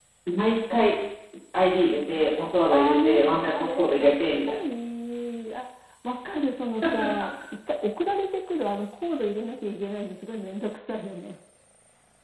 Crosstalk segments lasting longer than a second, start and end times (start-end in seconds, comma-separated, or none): 2.7-4.6